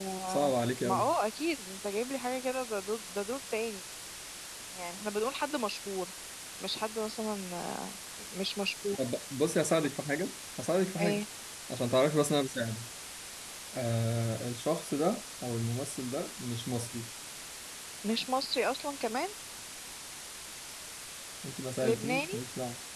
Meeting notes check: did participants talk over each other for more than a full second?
No

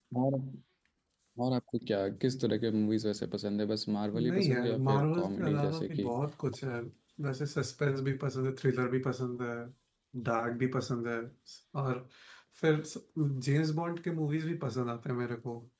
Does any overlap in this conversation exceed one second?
Yes, from 4.1 s

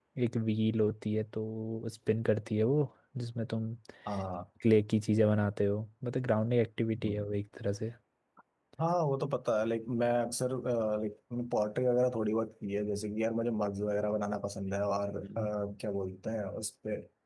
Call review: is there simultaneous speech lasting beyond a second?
No

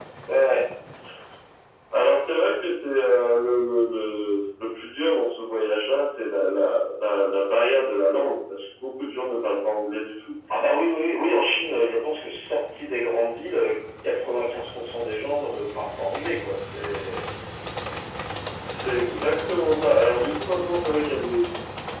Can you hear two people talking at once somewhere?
No

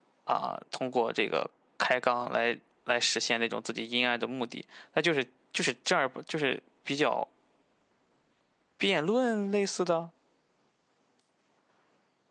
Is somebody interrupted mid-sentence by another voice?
No

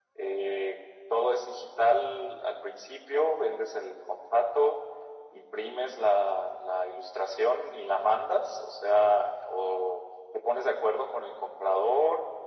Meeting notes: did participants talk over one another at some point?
No

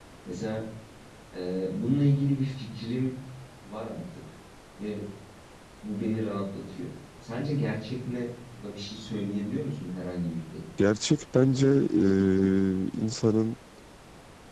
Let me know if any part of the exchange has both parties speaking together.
No

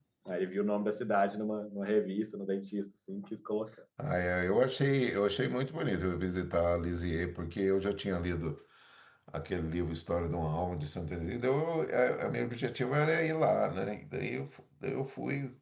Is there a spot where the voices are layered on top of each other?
No

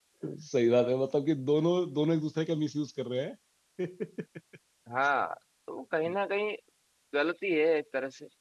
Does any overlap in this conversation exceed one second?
No

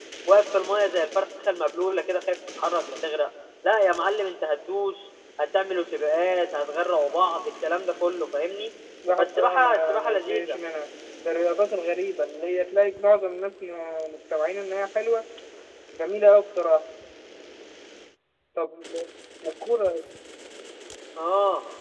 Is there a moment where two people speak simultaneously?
Yes, from 9.2 s

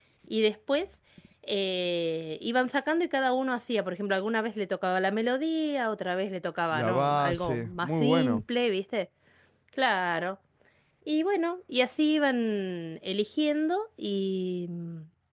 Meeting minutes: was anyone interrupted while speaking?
Yes, from 6.7 s

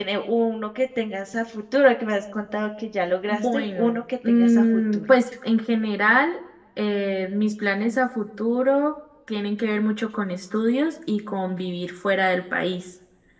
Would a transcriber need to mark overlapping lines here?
Yes, from 3.3 s

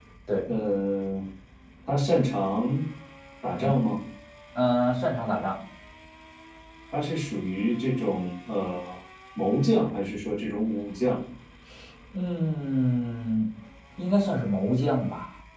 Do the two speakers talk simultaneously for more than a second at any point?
No

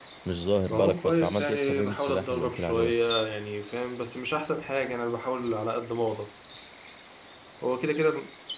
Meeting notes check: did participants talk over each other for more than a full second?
Yes, from 0.7 s

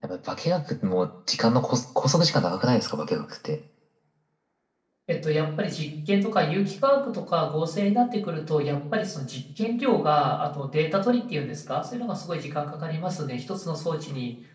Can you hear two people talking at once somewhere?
No

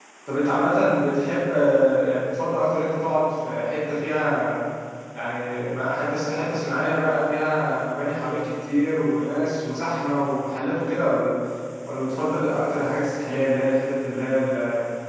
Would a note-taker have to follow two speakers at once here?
No

